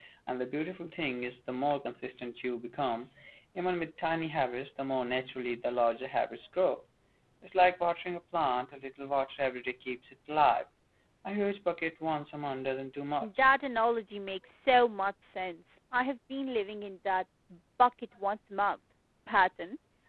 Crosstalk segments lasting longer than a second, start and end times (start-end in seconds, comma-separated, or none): none